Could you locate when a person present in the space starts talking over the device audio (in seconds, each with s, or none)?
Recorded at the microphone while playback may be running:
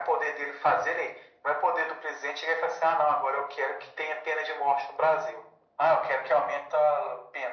none